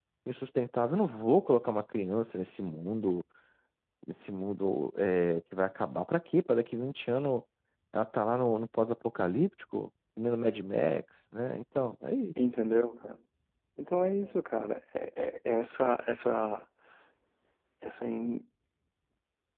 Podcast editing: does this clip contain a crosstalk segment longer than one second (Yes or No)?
No